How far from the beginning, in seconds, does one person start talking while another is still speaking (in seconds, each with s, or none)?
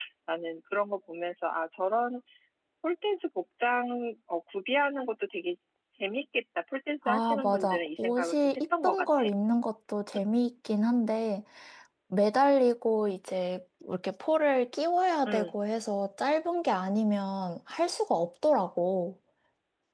7.0 s